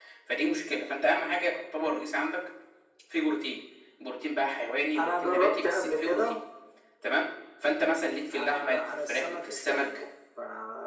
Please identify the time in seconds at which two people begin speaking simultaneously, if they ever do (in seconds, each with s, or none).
5.0 s